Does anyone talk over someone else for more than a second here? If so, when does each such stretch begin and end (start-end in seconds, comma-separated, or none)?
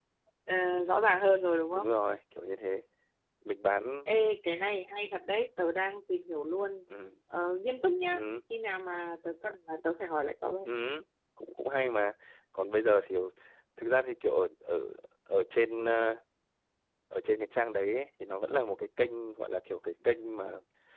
none